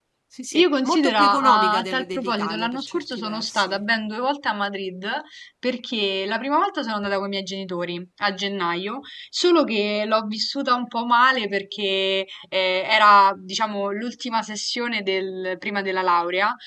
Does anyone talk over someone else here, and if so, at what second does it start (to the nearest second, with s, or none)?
1 s